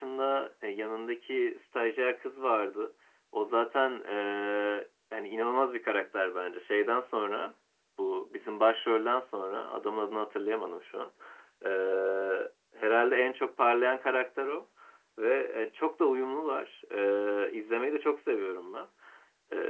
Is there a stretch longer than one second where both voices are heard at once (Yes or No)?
No